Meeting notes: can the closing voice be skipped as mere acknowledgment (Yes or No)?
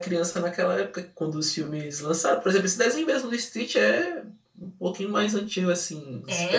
No